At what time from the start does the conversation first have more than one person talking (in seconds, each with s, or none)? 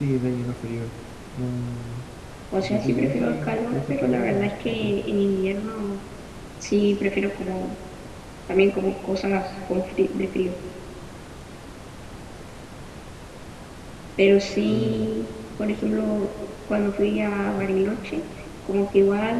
2.6 s